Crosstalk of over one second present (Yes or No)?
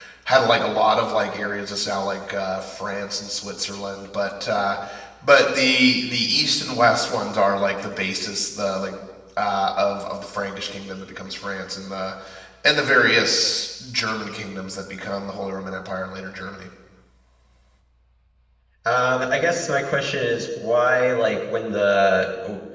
No